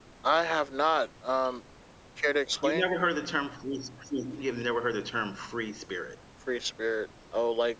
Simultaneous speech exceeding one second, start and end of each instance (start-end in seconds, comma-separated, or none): none